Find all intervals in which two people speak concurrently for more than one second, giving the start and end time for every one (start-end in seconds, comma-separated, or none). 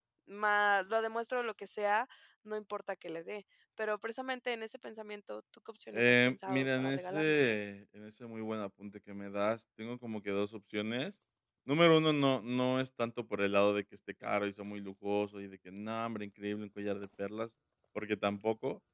5.9-7.4